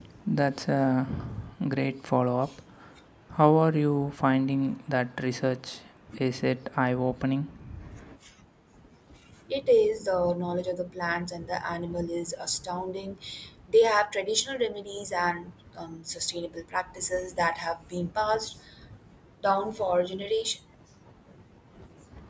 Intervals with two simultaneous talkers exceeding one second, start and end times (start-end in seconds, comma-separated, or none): none